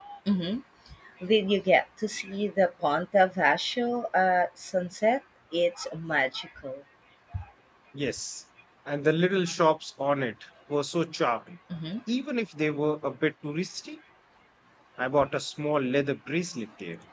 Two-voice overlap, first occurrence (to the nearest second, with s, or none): none